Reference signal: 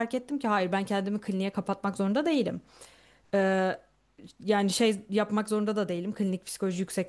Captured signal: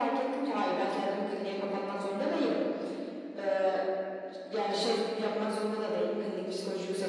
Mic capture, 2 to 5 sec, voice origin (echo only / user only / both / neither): echo only